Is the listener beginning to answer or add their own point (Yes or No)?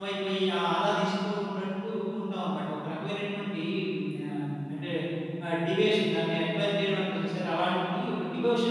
Yes